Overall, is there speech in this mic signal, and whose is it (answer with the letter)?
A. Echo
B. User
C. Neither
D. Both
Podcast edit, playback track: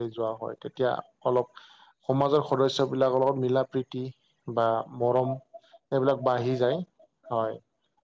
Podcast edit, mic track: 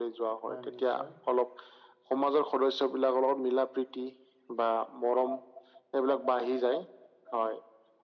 D